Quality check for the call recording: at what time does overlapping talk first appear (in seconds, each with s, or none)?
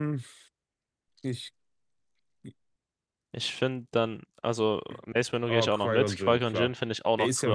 5.5 s